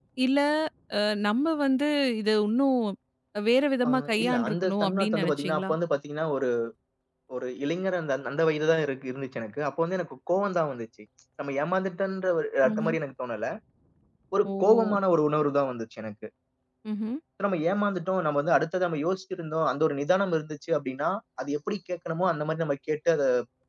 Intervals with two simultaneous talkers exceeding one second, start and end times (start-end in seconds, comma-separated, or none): 3.9-5.7